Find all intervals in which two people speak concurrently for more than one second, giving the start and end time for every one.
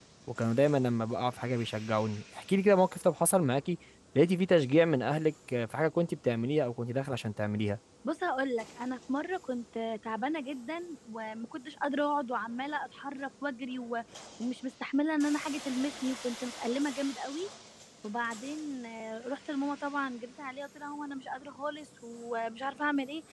none

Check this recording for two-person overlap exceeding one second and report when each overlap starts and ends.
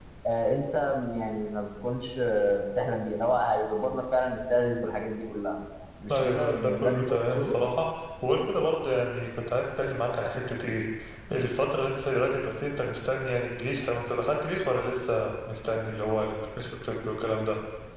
6.1-7.6

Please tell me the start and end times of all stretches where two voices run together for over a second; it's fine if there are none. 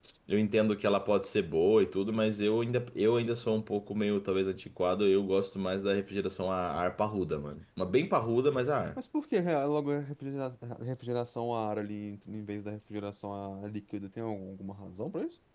none

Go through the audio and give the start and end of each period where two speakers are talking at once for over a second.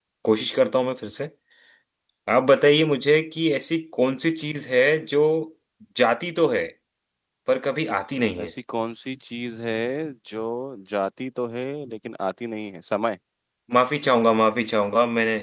none

